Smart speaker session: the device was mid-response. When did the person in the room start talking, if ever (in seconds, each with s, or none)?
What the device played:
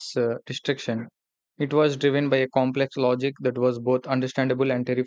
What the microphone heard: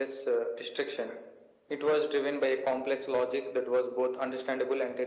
none